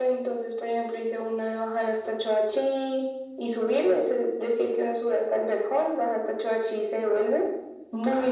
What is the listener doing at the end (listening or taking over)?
taking over